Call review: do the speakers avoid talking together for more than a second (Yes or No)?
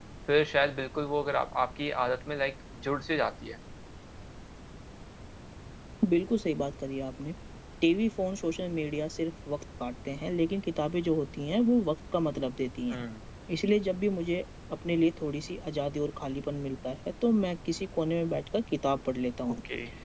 Yes